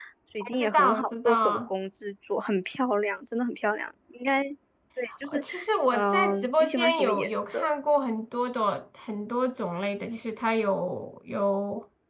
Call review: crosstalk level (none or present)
present